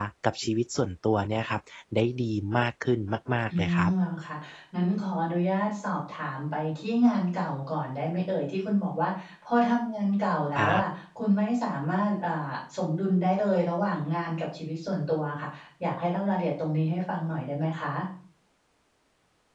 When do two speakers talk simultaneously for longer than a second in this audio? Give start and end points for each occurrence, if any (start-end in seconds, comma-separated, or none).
none